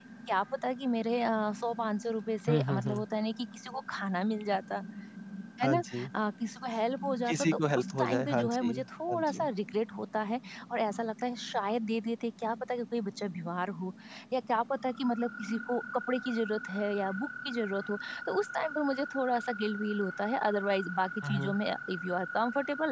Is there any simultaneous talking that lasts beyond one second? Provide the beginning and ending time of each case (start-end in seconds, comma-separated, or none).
7.3-9.4